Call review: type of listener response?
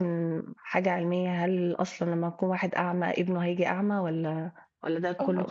taking over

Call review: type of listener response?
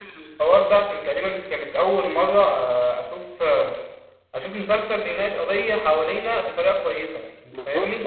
taking over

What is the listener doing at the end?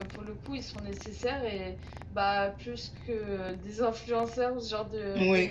taking over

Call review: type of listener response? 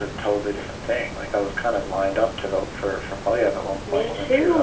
taking over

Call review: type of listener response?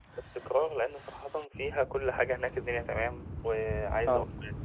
listening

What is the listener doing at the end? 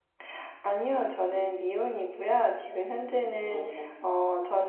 listening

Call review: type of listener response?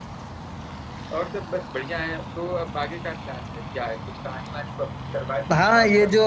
taking over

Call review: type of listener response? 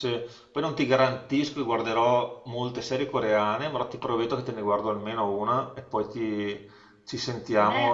taking over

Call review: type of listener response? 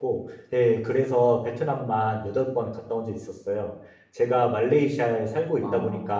listening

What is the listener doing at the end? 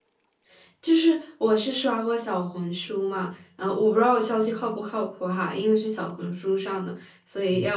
listening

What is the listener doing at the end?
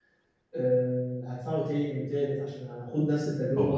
taking over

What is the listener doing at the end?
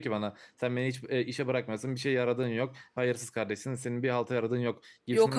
listening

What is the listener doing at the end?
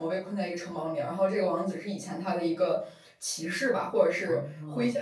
listening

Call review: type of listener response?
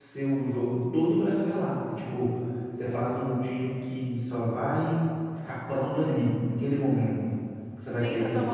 taking over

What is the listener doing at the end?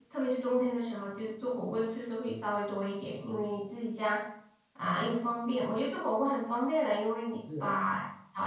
listening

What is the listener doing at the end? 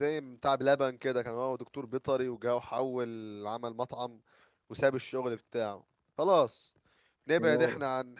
listening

